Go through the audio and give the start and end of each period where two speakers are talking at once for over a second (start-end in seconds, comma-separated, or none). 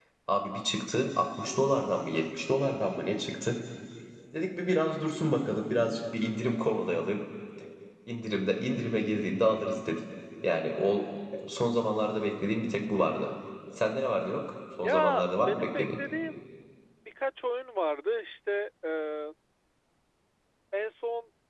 14.8-16.0